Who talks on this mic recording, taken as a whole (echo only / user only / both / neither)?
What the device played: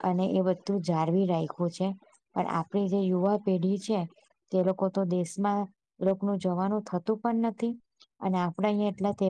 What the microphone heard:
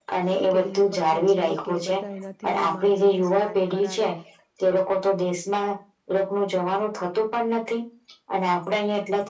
both